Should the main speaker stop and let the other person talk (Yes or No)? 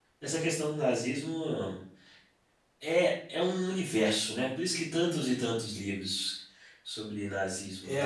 Yes